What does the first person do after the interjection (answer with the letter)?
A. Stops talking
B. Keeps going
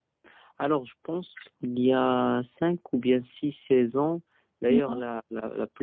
B